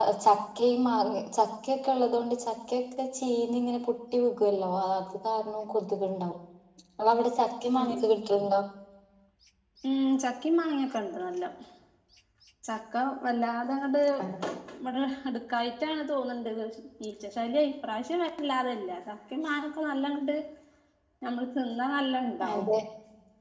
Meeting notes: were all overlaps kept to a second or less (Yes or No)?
Yes